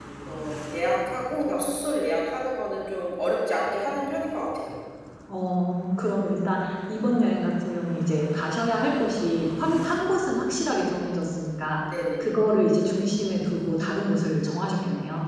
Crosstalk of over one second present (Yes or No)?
No